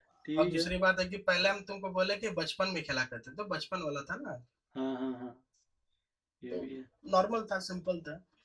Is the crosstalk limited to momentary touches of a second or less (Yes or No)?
Yes